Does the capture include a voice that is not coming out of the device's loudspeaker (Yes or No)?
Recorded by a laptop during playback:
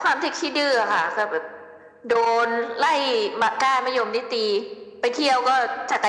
No